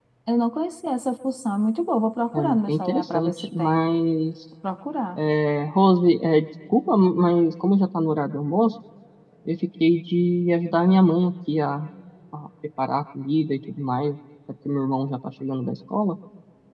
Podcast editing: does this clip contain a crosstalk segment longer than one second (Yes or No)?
Yes